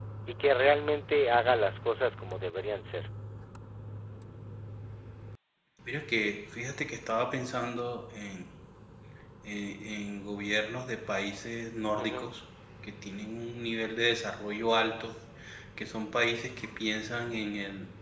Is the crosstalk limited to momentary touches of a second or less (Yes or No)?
Yes